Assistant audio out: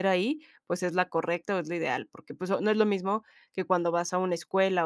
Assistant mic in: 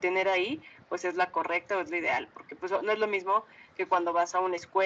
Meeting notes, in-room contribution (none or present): none